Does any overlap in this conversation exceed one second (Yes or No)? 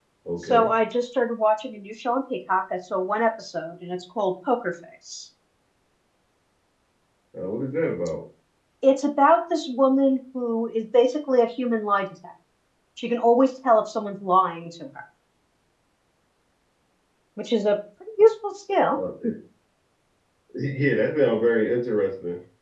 No